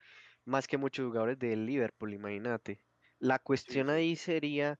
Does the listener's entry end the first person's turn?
No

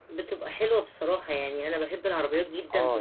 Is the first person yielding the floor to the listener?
No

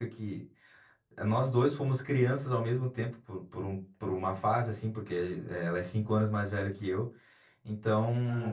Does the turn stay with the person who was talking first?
Yes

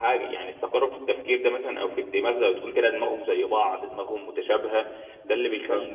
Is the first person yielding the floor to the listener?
No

